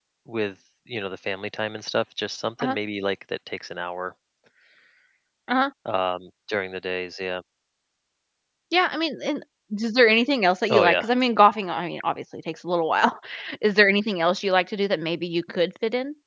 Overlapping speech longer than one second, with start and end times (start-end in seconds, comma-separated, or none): none